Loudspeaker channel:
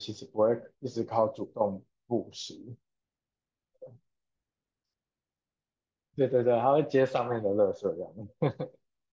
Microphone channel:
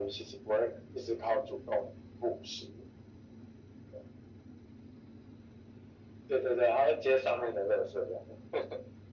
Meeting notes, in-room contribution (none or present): none